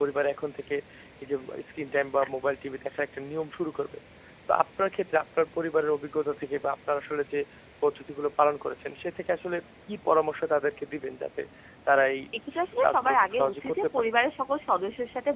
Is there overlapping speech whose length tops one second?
Yes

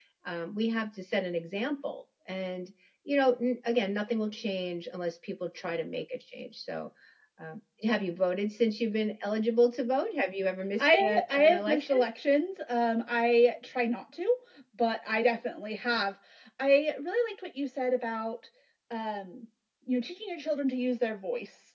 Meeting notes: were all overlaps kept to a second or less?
No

